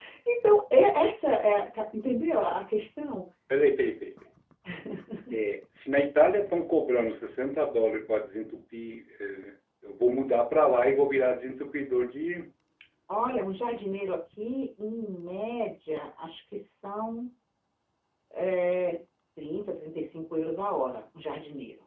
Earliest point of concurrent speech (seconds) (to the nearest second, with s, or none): none